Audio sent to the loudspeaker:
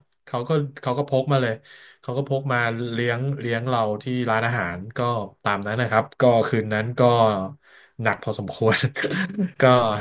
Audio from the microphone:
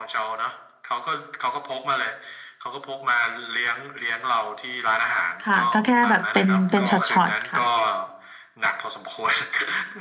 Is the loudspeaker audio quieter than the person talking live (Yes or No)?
Yes